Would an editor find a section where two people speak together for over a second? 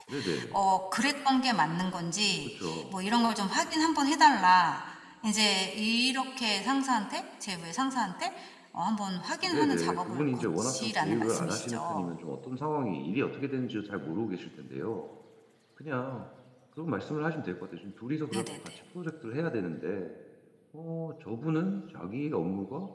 Yes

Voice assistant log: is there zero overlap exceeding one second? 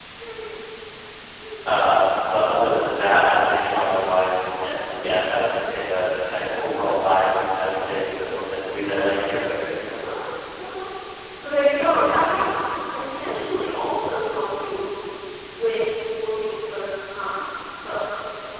Yes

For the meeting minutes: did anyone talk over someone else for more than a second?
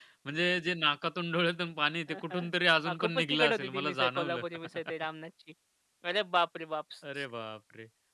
Yes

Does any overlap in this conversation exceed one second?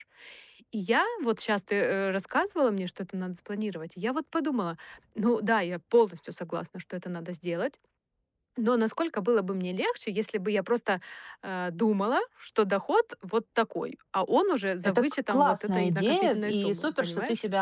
Yes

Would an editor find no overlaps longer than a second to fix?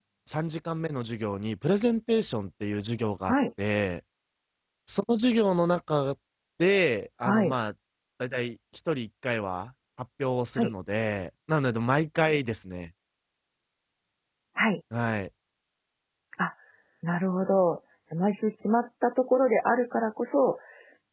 Yes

